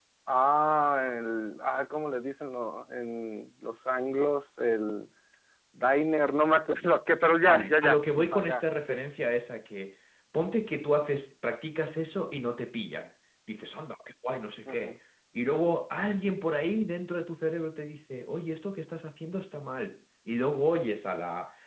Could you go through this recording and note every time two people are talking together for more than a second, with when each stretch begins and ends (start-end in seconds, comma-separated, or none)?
7.5-9.0